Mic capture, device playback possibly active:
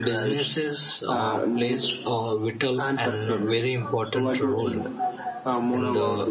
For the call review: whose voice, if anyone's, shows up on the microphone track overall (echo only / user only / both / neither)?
both